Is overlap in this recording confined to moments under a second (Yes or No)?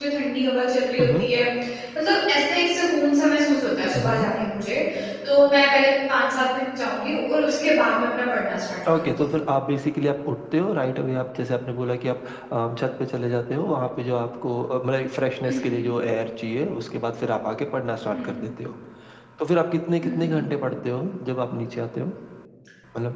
Yes